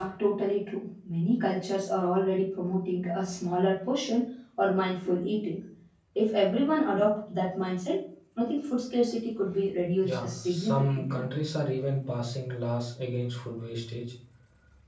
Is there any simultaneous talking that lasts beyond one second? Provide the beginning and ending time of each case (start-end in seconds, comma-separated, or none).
10.1-11.3